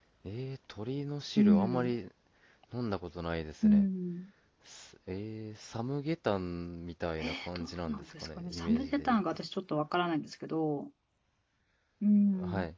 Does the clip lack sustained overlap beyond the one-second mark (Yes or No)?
No